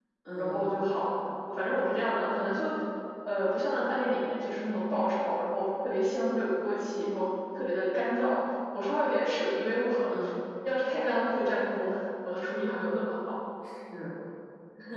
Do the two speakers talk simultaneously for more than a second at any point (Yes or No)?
No